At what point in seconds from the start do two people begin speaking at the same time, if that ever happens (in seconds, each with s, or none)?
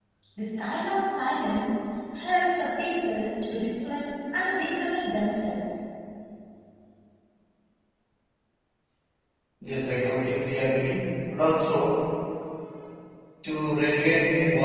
none